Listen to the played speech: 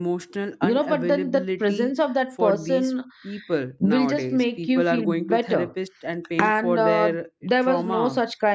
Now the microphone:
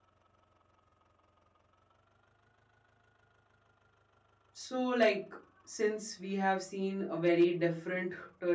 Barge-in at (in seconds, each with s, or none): 4.5 s